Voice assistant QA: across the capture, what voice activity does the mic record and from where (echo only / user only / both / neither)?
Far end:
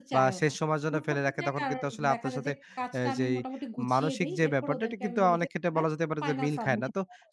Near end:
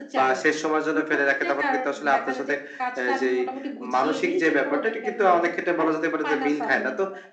echo only